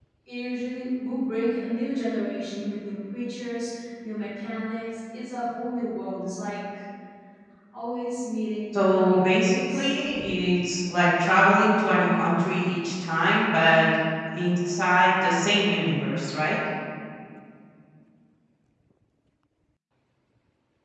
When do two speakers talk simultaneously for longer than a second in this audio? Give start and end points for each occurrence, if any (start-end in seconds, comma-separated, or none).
8.7-9.9